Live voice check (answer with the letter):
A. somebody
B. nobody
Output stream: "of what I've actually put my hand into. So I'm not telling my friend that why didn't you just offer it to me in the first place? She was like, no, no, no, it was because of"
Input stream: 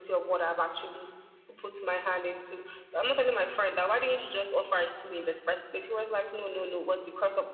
B